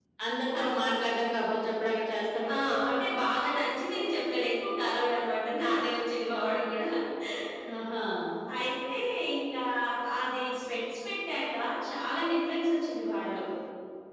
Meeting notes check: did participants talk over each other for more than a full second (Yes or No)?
No